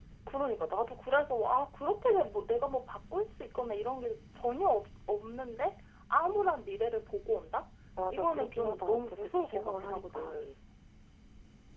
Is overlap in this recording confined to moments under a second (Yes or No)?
No